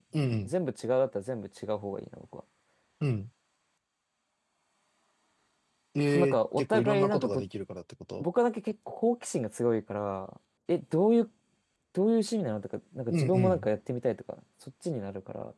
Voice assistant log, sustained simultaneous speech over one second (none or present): present